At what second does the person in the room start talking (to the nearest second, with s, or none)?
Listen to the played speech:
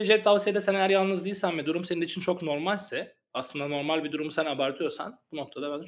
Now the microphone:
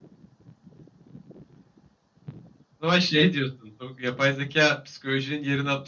3 s